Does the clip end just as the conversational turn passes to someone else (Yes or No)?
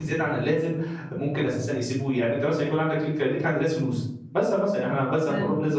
No